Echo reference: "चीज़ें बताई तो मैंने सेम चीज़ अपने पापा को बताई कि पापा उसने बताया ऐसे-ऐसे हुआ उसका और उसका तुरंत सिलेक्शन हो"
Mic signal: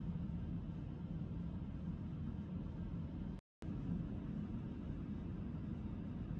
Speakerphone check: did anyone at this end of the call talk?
No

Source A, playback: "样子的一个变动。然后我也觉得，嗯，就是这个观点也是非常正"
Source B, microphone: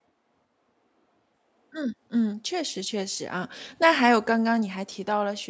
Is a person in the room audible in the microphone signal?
Yes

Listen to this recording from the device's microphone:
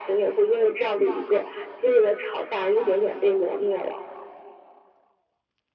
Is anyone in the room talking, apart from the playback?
No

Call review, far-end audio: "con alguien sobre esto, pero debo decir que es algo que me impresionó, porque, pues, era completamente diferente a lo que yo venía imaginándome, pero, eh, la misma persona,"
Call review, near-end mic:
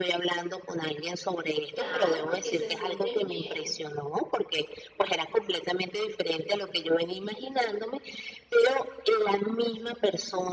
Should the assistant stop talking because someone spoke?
Yes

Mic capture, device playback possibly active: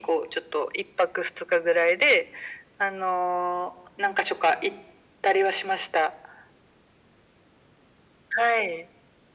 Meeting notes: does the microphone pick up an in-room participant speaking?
No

